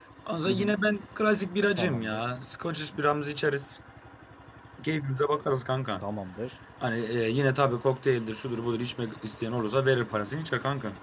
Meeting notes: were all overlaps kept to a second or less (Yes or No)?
Yes